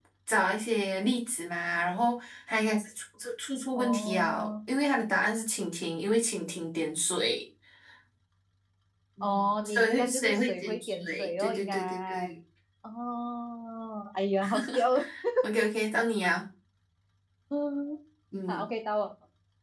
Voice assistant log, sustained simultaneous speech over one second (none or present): present